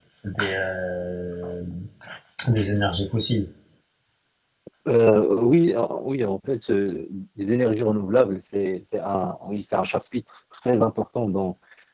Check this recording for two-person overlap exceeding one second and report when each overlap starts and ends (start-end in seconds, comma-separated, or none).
none